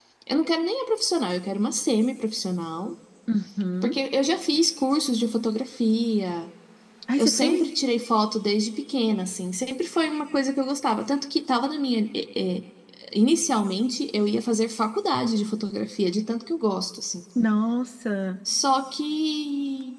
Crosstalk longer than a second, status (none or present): none